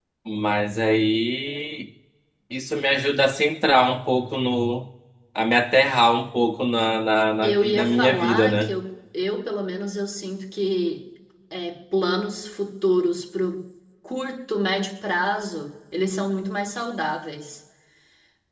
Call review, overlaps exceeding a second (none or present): present